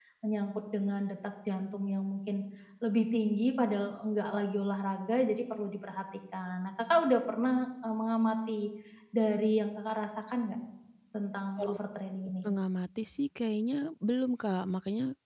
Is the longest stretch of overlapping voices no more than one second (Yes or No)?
Yes